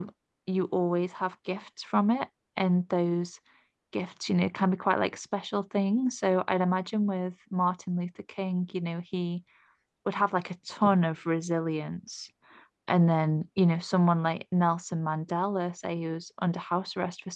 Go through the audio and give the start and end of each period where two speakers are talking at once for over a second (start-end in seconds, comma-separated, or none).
none